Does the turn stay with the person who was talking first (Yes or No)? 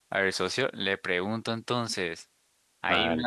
Yes